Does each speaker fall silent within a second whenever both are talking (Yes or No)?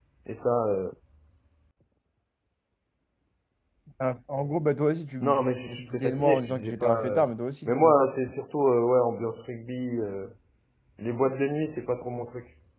No